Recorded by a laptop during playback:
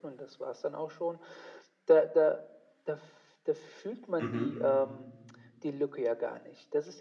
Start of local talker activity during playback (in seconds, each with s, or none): 4.2 s